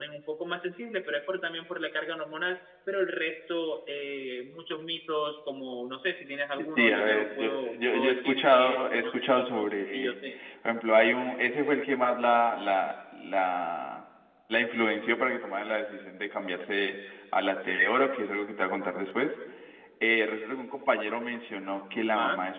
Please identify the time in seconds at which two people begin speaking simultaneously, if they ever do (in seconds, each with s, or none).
6.5 s